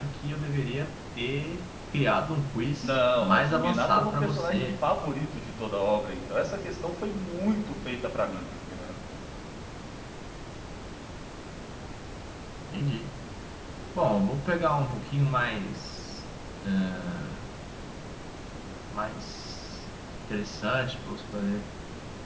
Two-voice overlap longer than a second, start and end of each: 2.8-4.7

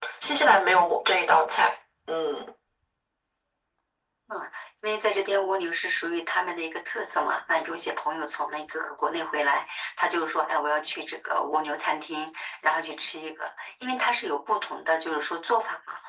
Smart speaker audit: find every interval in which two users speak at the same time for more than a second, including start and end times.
none

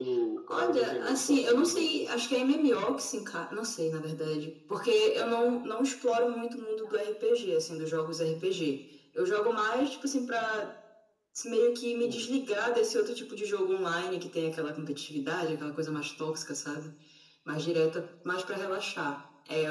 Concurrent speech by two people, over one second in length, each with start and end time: 0.5-2.1

